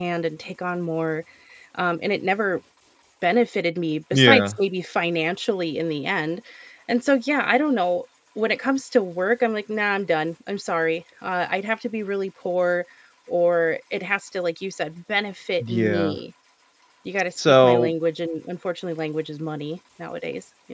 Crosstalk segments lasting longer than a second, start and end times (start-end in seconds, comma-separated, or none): none